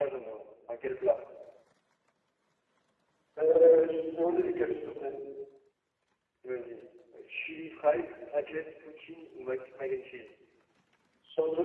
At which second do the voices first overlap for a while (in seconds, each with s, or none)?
none